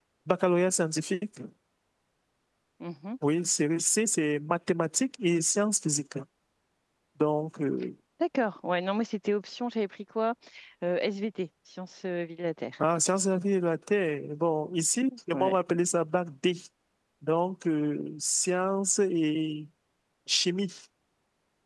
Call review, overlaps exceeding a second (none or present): none